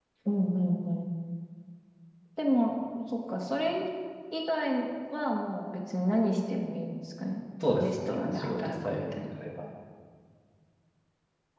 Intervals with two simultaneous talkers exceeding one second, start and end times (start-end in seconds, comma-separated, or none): 7.8-9.1